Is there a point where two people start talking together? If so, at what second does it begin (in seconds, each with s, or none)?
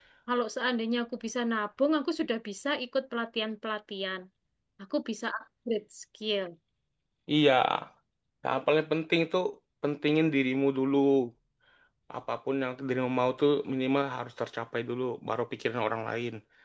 none